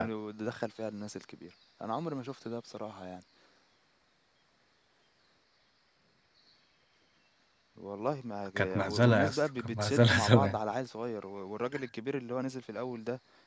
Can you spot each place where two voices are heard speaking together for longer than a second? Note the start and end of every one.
8.6-10.6

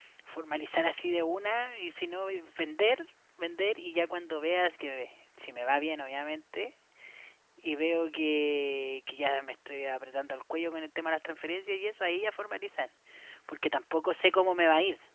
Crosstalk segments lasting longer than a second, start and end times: none

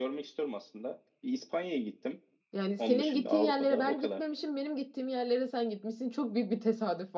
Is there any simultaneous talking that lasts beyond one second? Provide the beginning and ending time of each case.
2.8-4.2

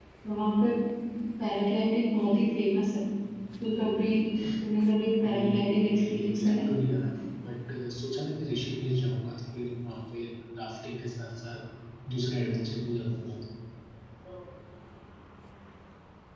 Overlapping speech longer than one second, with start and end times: 5.3-6.7

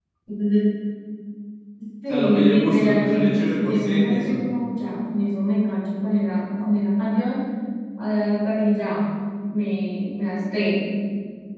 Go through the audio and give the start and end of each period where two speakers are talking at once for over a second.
2.1-4.4

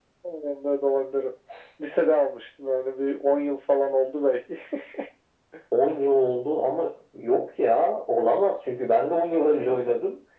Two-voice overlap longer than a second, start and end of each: none

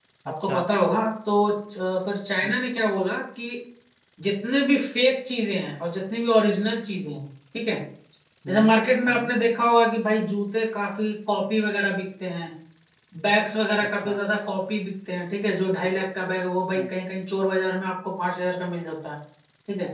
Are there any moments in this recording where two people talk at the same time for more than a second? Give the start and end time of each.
none

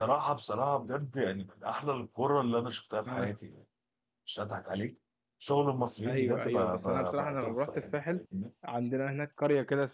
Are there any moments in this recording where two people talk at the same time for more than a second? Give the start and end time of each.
6.1-8.2

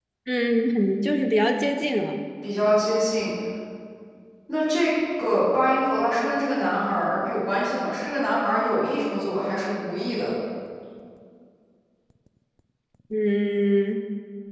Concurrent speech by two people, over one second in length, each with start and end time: none

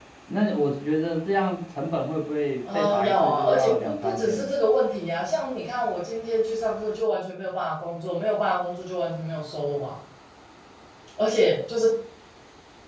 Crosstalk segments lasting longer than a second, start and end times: 2.7-4.5

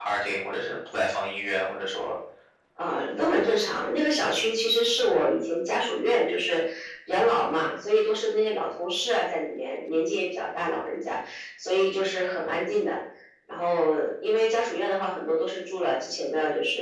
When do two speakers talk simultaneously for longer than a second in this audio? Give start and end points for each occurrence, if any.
none

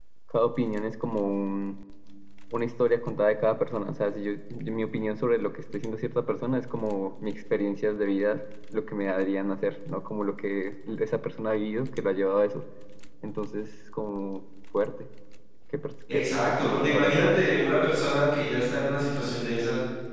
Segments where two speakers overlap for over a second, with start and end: 16.1-17.5

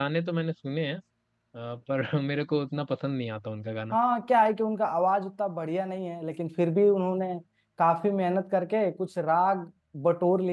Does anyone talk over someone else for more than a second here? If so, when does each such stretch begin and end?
none

